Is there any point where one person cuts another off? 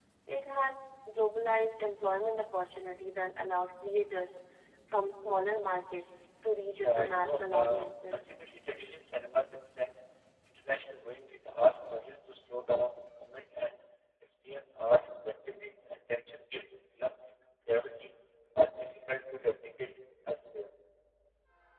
Yes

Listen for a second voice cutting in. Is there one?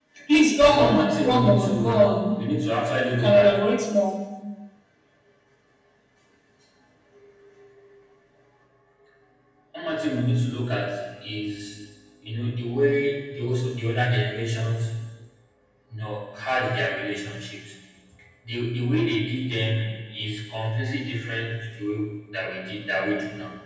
Yes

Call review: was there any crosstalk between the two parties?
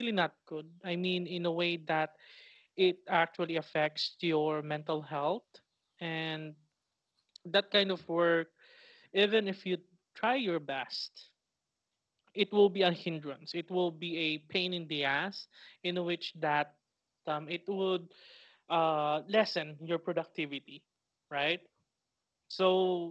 No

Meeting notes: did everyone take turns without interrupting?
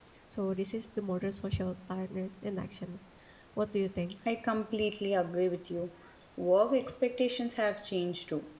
Yes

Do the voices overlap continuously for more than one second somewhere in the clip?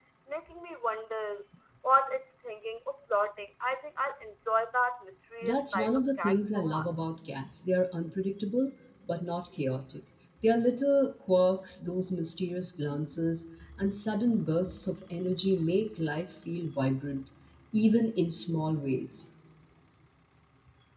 Yes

